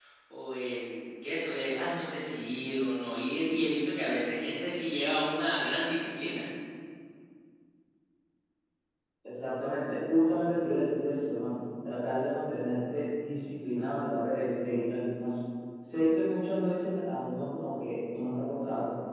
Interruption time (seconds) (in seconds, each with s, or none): none